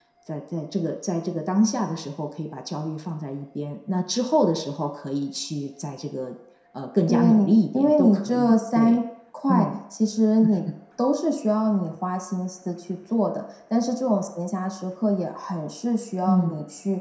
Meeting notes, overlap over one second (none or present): present